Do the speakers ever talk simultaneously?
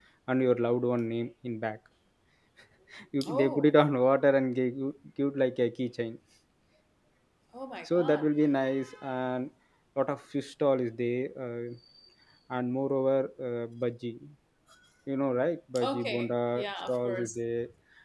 Yes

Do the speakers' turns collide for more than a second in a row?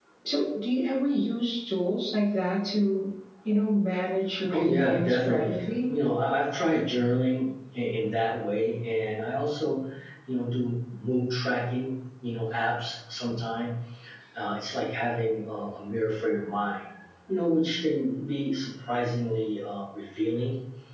Yes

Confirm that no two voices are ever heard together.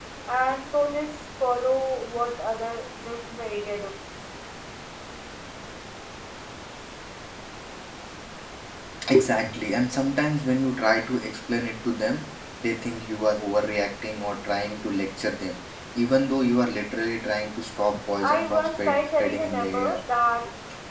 No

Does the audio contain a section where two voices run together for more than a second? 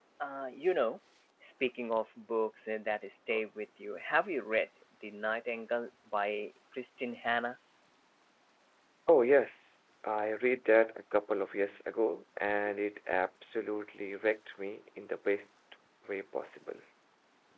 No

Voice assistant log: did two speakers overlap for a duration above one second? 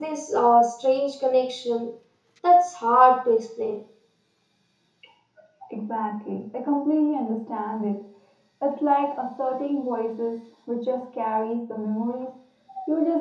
No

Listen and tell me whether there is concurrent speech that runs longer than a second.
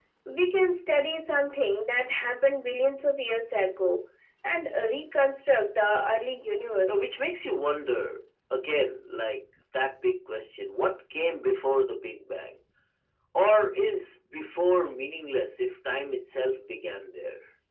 No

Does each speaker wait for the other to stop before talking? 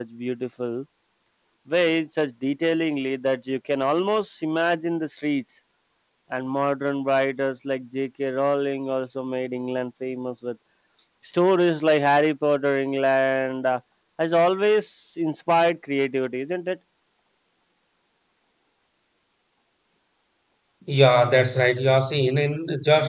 Yes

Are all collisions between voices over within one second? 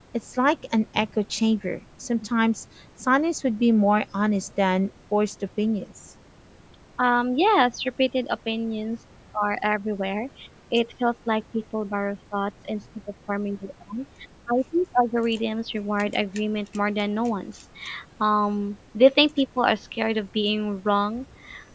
Yes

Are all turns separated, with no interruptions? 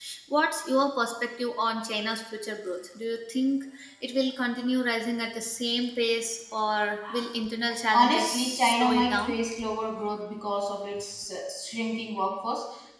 No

